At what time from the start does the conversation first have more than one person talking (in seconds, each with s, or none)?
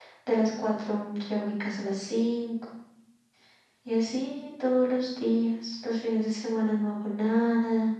none